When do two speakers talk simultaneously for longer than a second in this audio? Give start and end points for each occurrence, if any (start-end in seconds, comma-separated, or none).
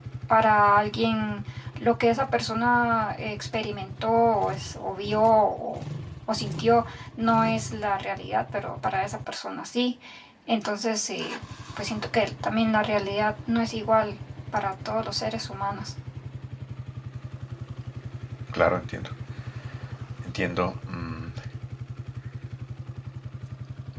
none